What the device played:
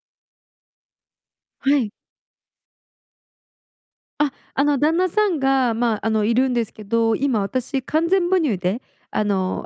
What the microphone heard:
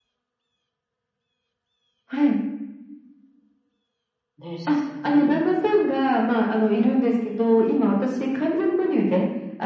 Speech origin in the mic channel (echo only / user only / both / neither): both